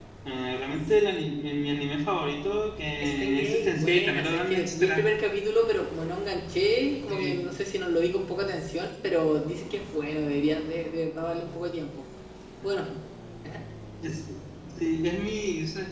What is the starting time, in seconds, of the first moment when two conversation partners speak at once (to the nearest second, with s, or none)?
3 s